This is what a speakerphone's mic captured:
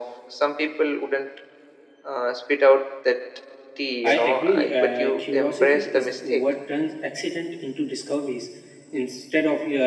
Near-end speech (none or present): present